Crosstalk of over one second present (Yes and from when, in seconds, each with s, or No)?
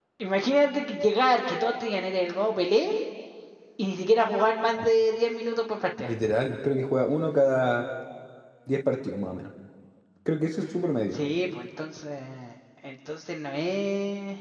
No